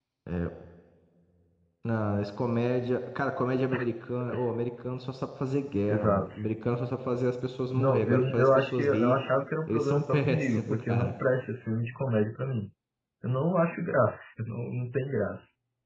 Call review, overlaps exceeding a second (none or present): present